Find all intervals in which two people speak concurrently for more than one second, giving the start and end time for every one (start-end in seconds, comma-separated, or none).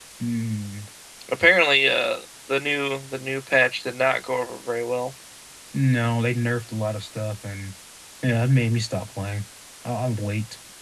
none